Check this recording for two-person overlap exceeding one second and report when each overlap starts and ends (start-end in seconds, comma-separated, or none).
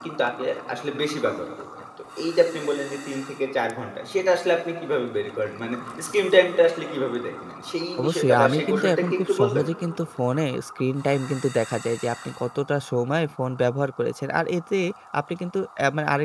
8.0-9.7